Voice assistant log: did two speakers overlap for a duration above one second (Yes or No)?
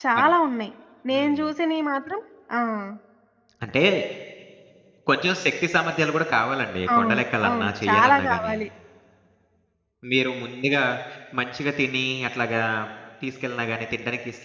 Yes